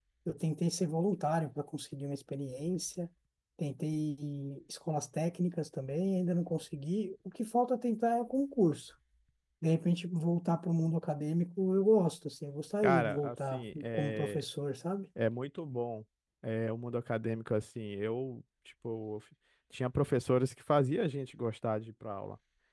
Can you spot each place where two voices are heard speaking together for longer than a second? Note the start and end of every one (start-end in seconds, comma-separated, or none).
12.8-14.4